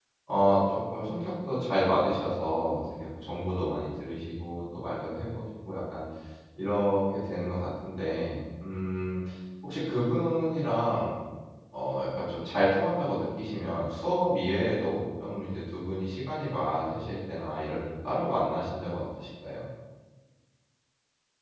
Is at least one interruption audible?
No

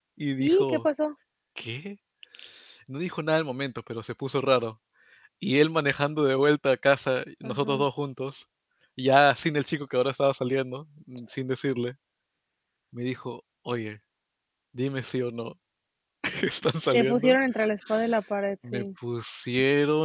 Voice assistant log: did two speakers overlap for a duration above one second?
No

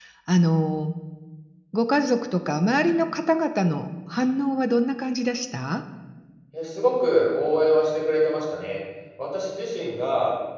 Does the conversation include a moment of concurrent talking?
No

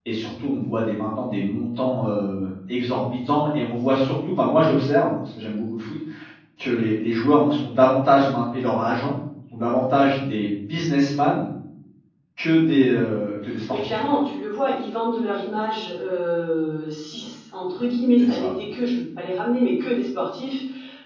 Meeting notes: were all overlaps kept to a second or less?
Yes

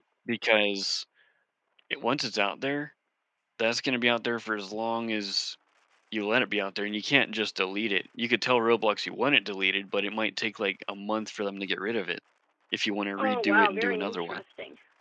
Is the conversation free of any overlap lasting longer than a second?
No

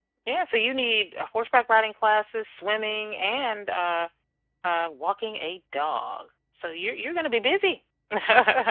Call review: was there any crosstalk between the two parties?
No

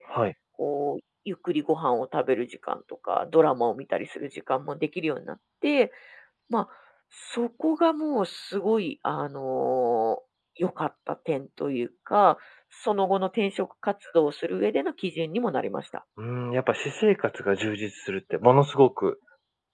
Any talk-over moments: No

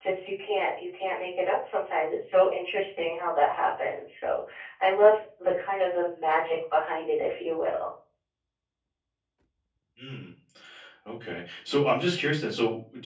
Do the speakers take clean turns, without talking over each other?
Yes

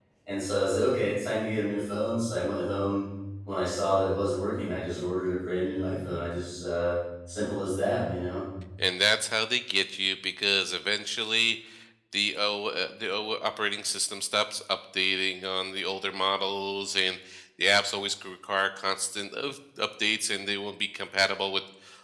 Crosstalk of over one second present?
No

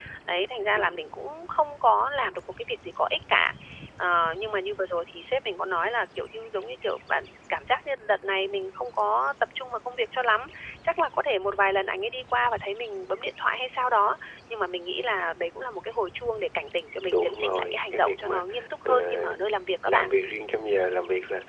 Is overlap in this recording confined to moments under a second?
No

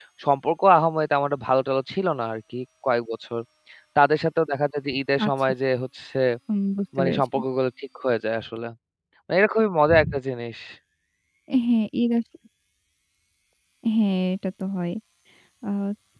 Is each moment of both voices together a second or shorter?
Yes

